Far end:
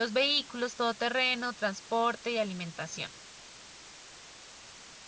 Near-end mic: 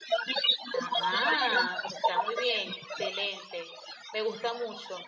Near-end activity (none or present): present